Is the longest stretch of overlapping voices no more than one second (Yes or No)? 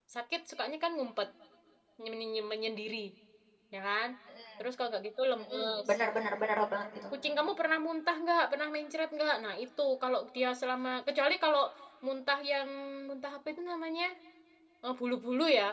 Yes